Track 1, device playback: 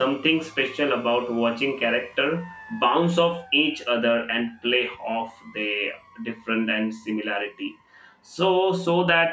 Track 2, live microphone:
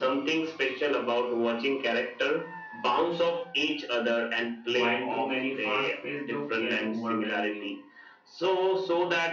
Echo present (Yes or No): Yes